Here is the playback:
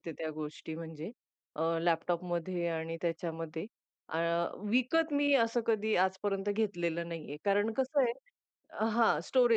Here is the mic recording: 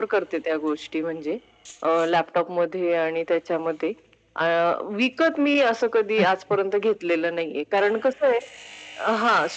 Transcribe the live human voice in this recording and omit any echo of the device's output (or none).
अच्छा.